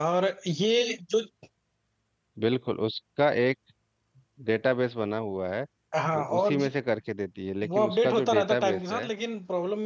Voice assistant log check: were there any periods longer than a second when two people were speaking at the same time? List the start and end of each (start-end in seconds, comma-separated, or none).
7.8-9.1